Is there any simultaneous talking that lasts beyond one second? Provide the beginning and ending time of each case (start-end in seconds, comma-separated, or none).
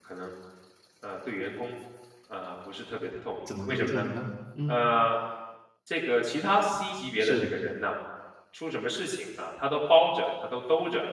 none